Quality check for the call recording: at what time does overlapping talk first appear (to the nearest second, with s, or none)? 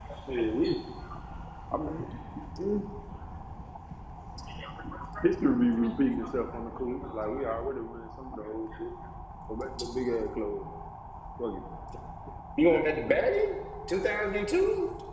none